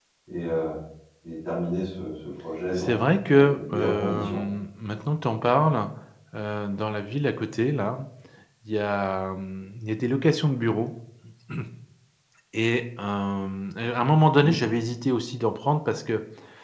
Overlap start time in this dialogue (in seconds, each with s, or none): 2.8 s